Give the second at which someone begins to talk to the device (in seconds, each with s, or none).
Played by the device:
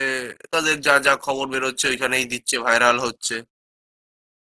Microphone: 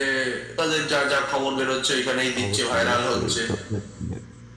2.4 s